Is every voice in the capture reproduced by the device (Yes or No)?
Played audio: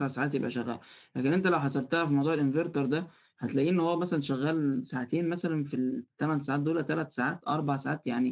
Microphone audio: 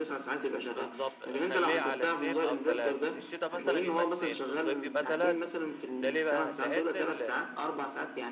No